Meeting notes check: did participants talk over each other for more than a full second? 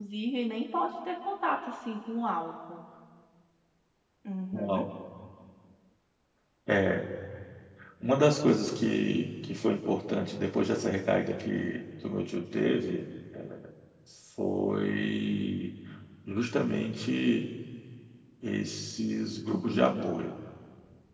No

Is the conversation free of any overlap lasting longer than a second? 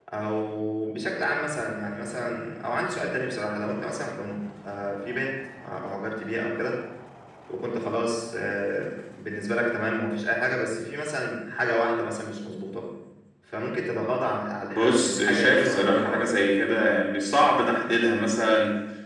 No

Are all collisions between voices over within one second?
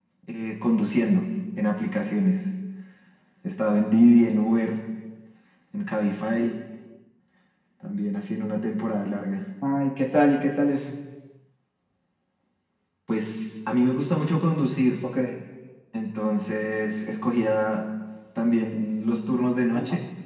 Yes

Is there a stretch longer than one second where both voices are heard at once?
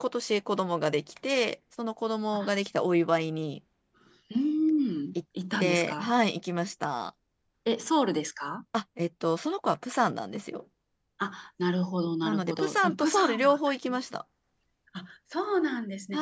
Yes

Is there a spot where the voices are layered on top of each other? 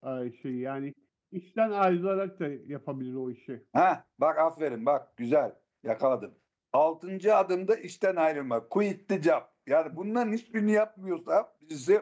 No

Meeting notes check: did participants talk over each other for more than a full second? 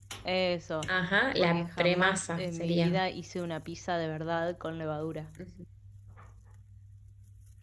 Yes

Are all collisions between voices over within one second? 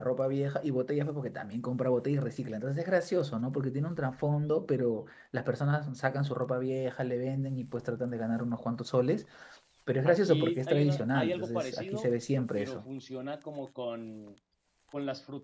No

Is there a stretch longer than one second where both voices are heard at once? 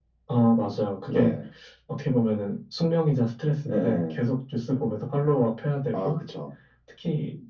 No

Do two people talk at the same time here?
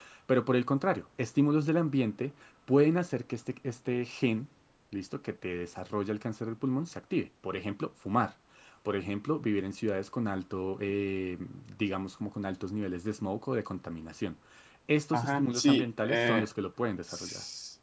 Yes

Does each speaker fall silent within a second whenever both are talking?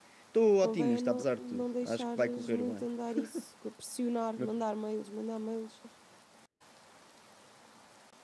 No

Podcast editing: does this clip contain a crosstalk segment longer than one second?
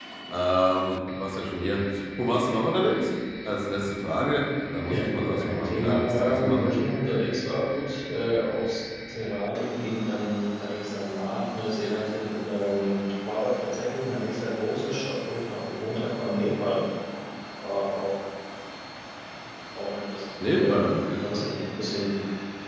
Yes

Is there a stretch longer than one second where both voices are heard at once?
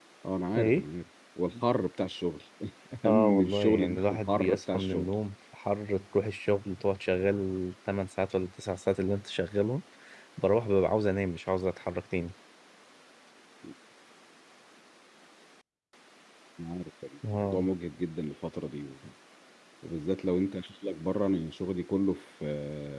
Yes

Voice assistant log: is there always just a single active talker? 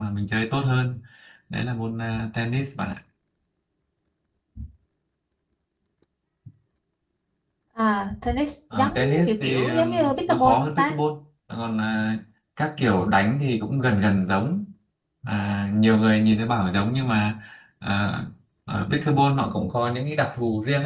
No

